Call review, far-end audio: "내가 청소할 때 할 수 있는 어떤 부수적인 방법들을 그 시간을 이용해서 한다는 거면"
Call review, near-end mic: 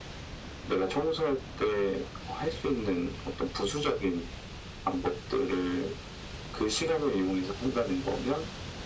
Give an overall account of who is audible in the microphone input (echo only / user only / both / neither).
echo only